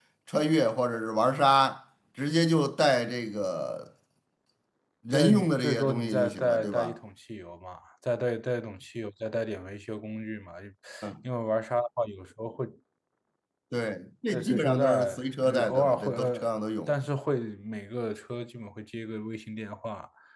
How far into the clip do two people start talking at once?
5 s

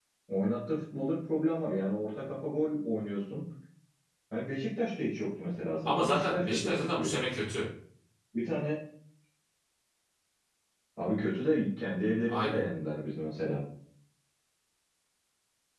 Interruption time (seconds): 6 s

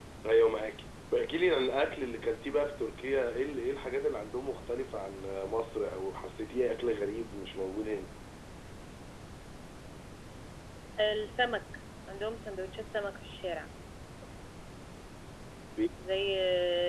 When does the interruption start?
none

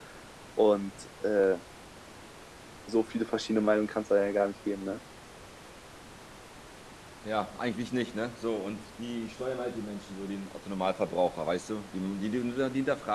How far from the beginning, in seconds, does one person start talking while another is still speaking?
none

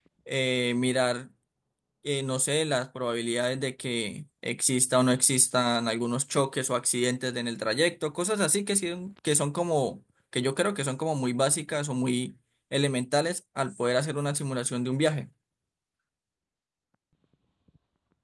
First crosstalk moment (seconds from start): none

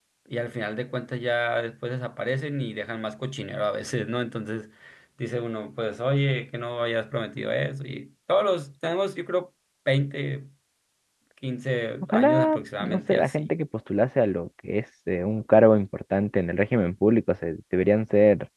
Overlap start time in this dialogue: 12 s

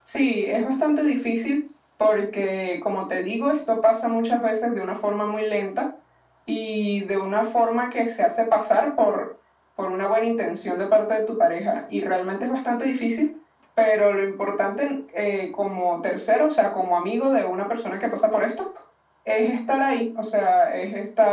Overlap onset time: none

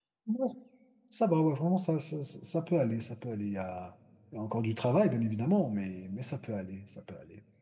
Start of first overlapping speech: none

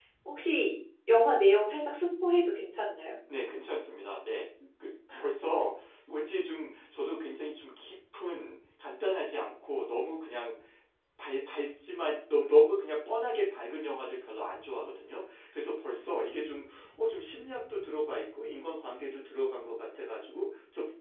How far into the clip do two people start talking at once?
none

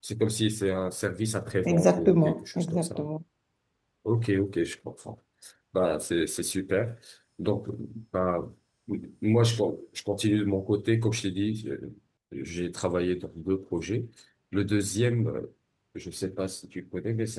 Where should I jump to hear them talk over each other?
2 s

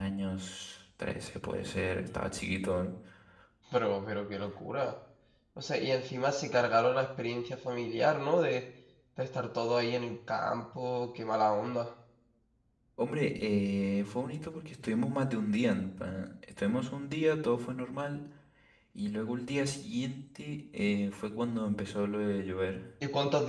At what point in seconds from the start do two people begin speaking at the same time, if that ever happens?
none

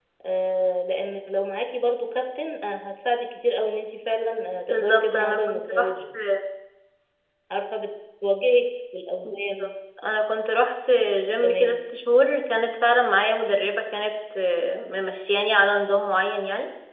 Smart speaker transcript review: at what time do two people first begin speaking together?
5 s

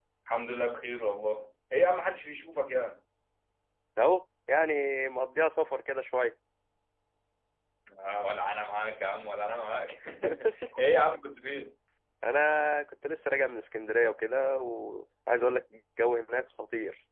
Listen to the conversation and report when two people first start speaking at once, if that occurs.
none

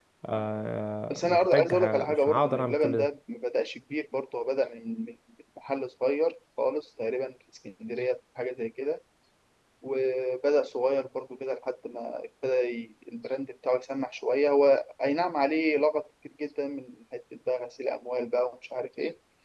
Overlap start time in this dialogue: 1 s

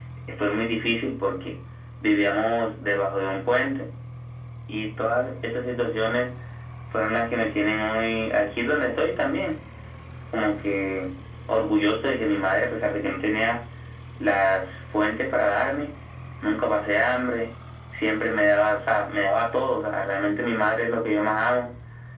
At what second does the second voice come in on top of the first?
none

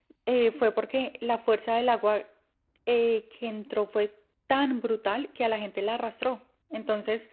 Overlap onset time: none

